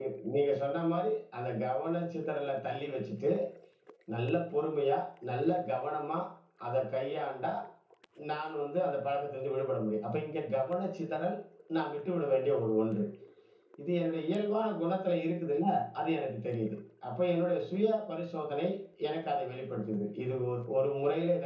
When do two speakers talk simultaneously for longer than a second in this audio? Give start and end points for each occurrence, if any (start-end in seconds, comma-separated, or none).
none